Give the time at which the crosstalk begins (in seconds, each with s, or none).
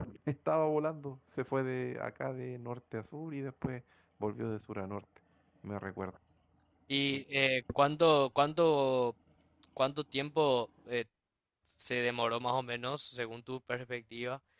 none